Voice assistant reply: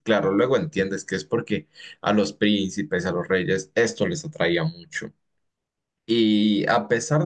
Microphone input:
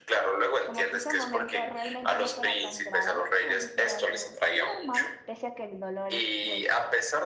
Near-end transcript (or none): como que ese momento realmente no fuera tan grave, como si fuera algo normal, pese a que el dolor es pues